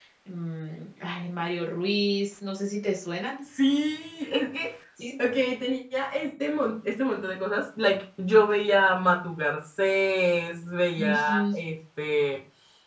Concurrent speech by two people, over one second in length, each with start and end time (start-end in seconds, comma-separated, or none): none